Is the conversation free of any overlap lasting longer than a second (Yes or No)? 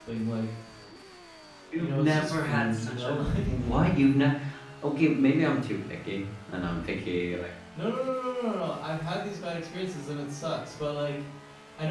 No